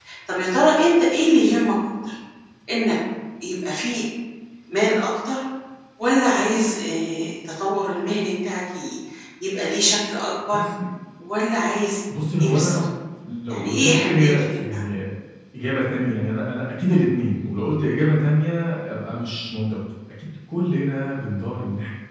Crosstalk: present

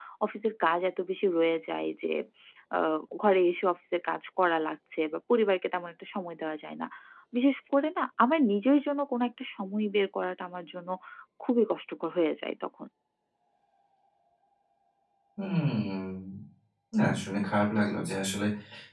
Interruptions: none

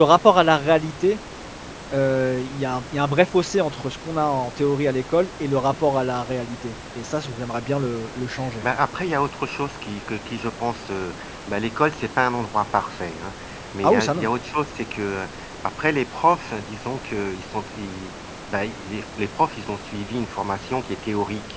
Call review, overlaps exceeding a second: none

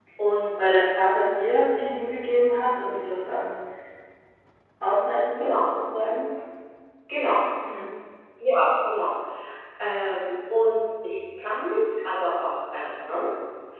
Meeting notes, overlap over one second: none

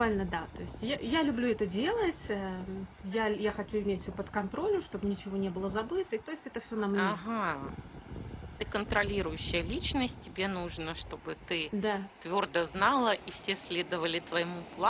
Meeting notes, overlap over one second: none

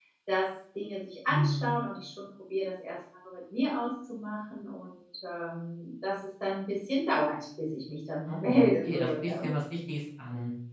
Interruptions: present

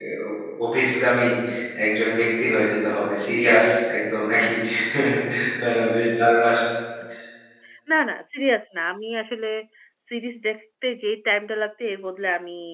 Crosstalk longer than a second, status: none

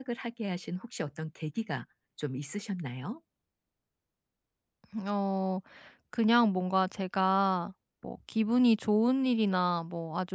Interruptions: none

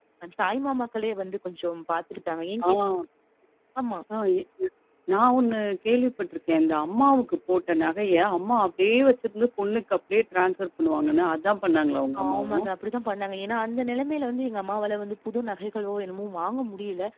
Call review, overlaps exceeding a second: none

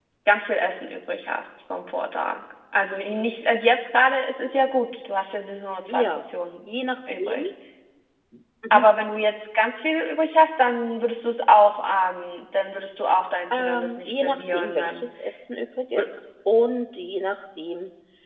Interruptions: present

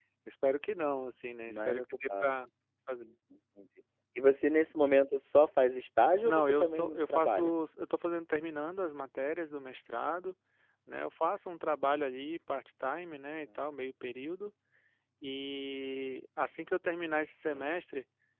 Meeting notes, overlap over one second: present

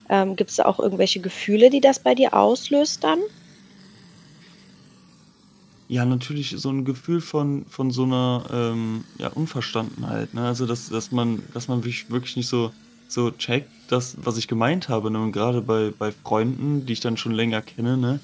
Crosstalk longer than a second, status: none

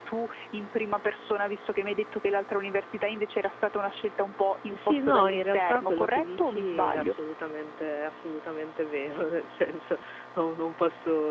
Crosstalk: present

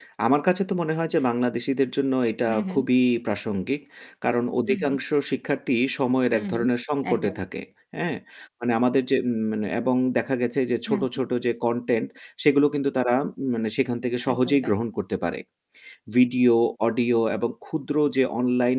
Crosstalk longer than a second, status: none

